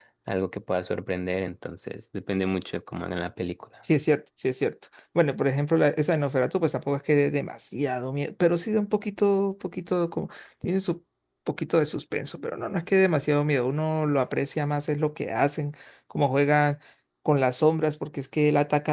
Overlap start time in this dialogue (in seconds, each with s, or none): none